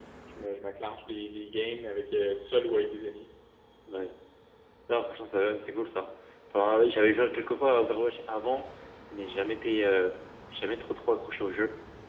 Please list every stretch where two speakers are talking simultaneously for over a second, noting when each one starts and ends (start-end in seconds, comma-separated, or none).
none